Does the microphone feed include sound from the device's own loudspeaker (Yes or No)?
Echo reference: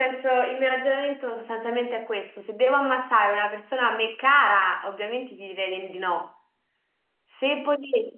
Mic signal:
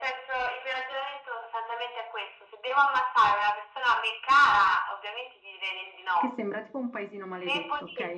Yes